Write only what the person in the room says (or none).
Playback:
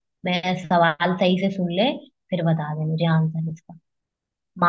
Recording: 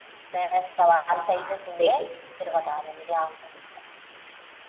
हाँ देख